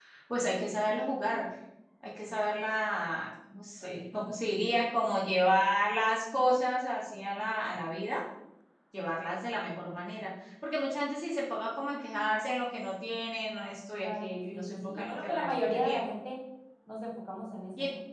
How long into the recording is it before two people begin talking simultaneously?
14.0 s

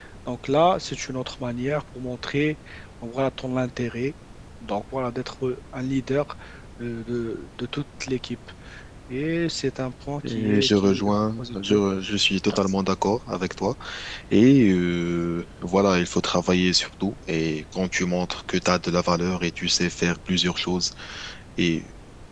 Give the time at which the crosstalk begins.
10.2 s

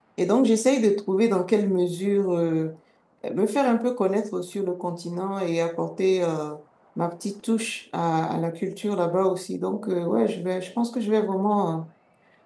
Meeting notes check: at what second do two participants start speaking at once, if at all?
none

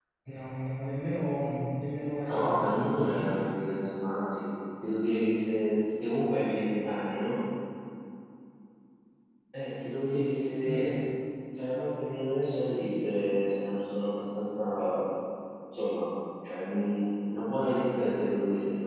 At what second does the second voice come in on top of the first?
2.3 s

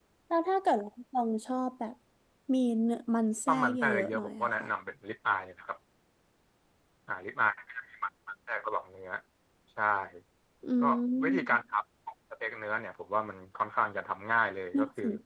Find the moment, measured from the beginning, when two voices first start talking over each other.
3.5 s

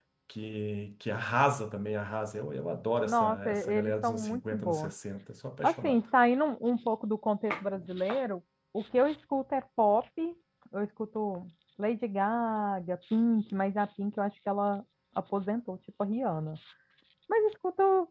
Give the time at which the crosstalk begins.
3.0 s

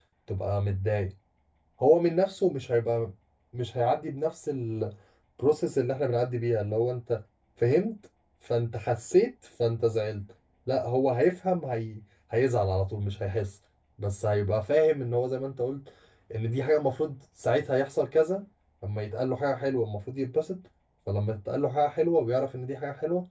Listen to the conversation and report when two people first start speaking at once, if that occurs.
none

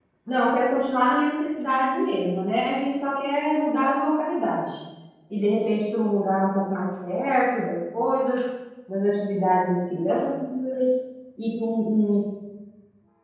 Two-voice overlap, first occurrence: none

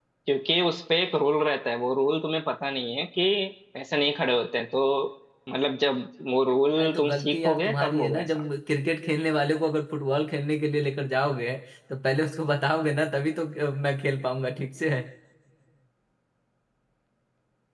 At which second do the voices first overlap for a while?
6.8 s

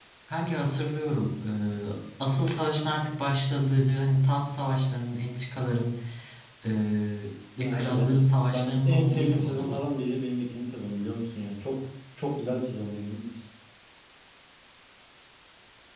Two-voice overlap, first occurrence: 7.6 s

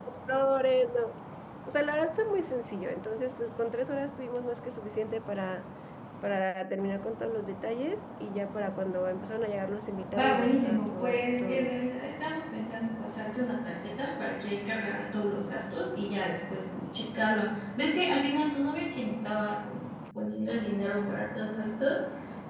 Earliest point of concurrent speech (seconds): 10.2 s

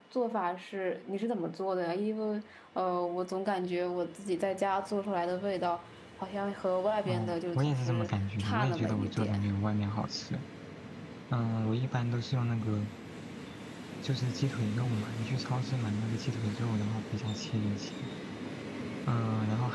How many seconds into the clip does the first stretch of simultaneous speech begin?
7.0 s

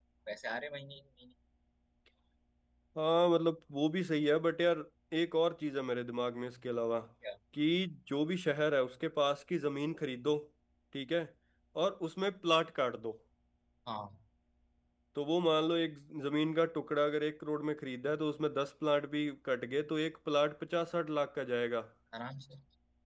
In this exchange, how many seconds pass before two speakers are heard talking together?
none

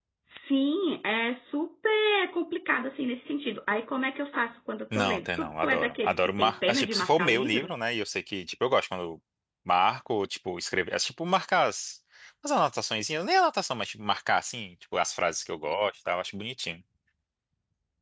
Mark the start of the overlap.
4.9 s

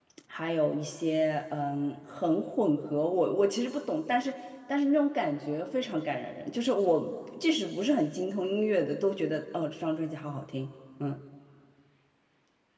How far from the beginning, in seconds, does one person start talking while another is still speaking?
none

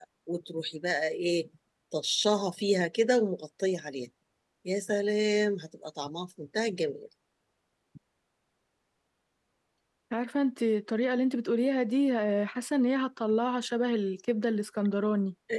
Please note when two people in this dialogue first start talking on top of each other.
none

